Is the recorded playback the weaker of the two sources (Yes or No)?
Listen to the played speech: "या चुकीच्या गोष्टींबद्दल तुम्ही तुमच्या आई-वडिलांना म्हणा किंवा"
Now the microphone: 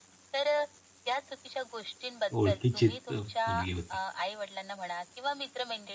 Yes